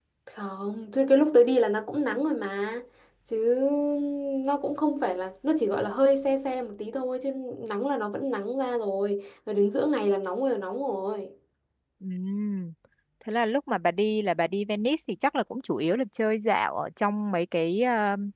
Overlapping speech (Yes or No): No